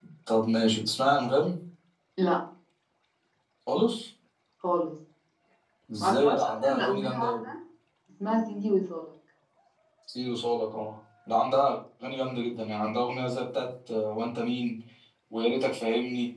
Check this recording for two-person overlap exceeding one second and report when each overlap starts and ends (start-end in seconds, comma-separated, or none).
6.0-7.4